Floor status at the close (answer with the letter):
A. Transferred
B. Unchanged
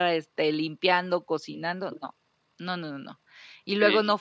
B